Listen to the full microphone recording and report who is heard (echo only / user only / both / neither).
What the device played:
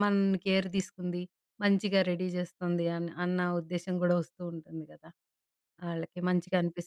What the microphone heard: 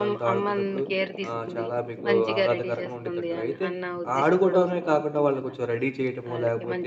both